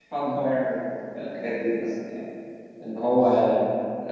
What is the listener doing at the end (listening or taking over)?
listening